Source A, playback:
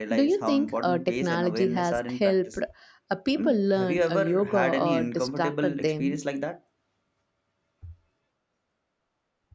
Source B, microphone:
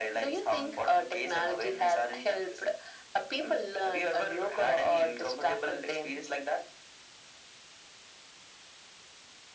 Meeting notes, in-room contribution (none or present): none